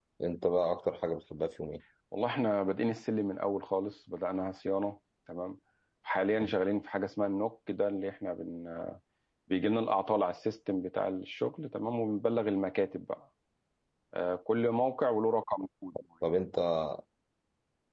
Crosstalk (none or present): none